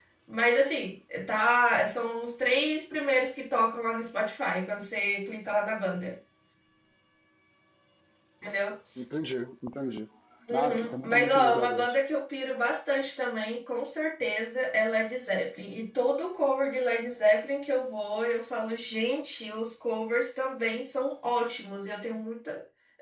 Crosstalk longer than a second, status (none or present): present